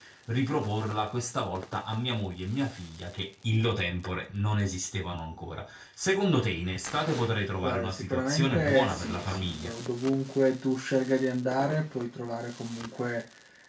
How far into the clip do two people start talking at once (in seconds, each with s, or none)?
7.6 s